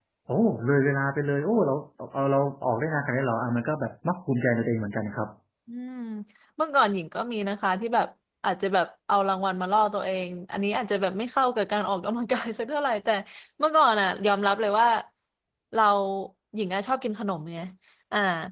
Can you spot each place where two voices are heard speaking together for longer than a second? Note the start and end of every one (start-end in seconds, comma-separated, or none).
none